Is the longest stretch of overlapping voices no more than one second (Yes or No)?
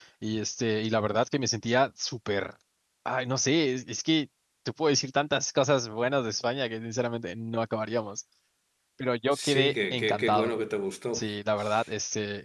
No